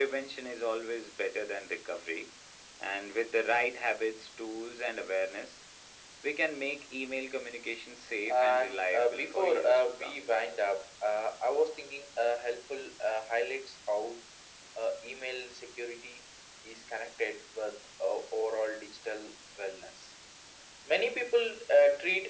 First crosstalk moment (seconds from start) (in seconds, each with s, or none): 8.3 s